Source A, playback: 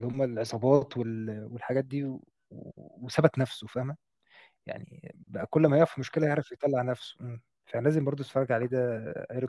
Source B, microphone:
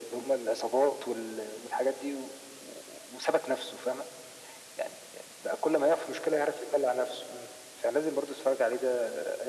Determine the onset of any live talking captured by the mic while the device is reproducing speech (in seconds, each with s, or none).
none